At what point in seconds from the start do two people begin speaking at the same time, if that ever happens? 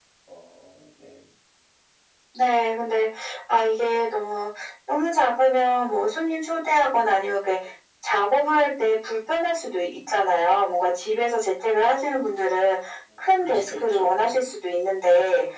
13 s

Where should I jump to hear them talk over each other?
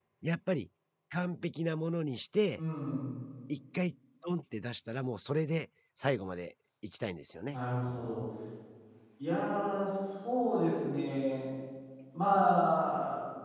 none

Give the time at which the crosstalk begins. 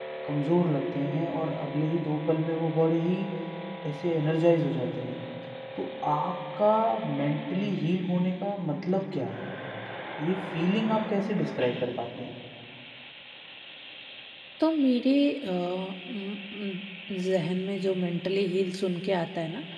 none

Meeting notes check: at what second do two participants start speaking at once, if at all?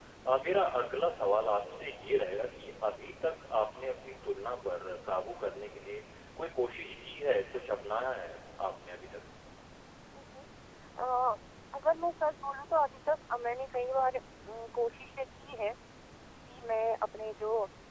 none

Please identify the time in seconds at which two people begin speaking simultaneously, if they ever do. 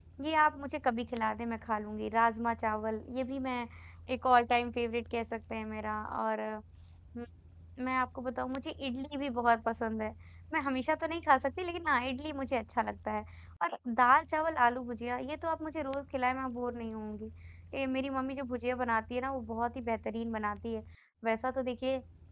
none

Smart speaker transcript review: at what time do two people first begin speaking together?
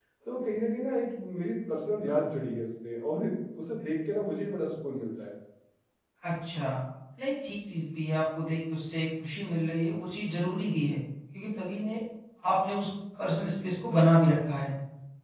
none

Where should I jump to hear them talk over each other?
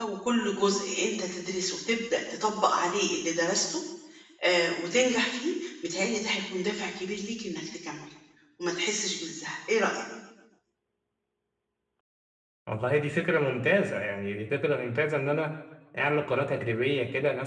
none

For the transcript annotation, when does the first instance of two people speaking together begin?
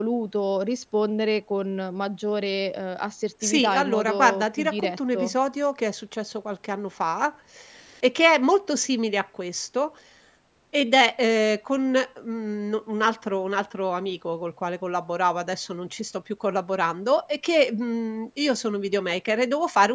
3 s

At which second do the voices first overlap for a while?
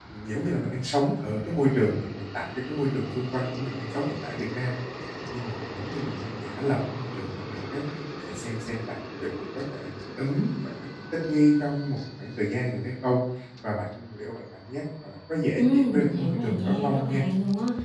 16 s

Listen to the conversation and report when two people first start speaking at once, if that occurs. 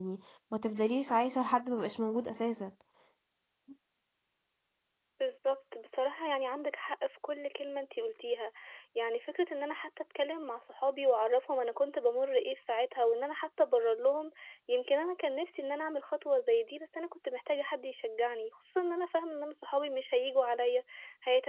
none

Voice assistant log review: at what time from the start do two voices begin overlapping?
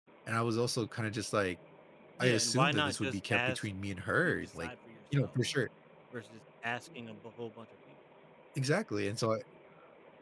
2 s

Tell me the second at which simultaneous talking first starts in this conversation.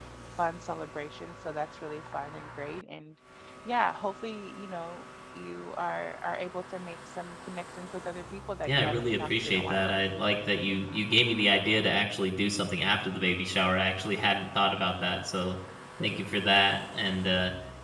9 s

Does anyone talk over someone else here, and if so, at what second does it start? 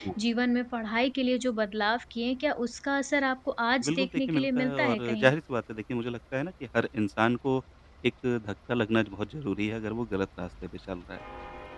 4 s

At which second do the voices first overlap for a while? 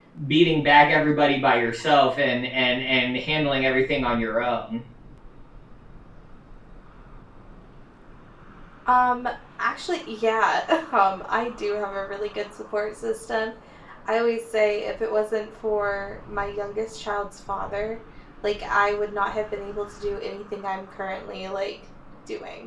none

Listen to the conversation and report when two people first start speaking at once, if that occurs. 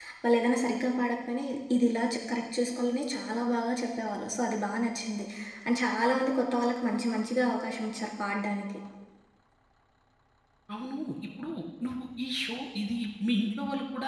none

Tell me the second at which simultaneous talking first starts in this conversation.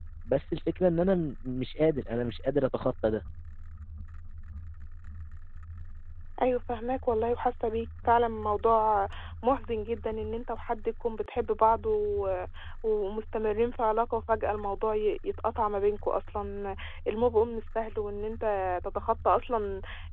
none

